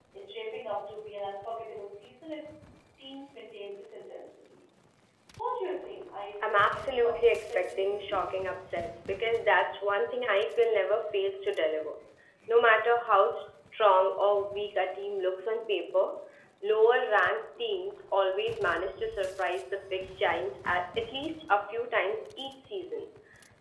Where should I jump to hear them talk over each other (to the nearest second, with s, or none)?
6 s